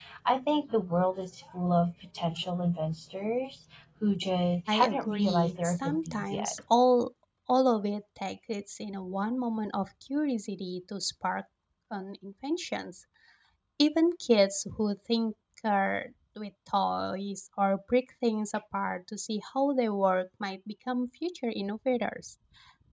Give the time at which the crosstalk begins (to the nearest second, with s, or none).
5 s